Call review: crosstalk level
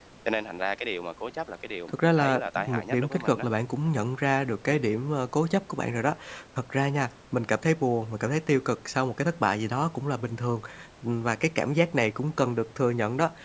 present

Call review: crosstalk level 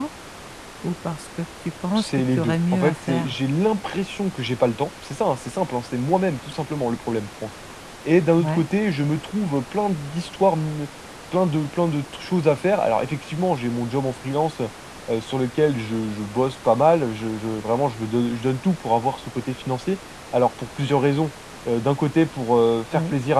present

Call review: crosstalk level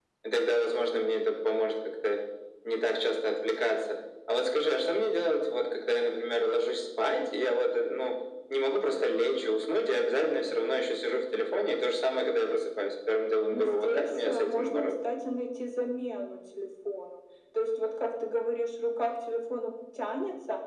present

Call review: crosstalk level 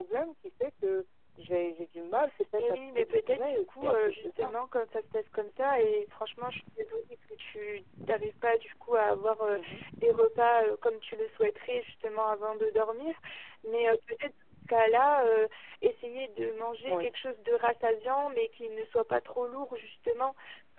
present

